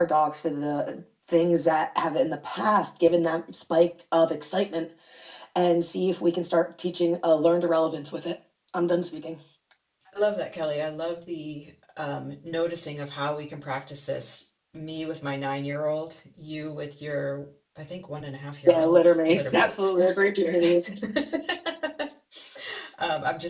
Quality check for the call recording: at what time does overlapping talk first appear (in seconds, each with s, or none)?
18.7 s